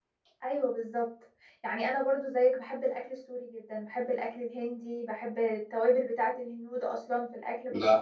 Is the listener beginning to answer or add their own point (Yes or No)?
Yes